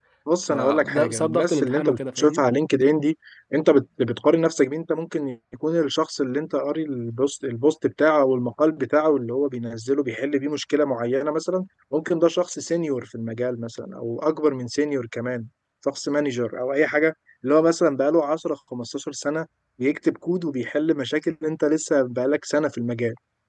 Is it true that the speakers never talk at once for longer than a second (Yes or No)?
No